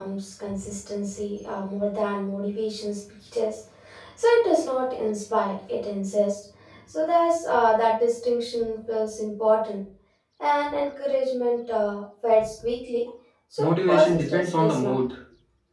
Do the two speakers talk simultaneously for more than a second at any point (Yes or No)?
Yes